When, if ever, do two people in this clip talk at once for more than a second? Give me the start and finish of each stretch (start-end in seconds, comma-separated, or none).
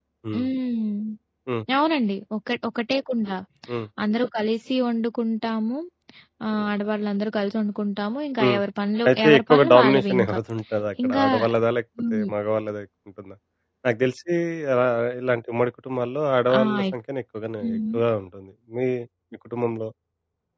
9.1-10.4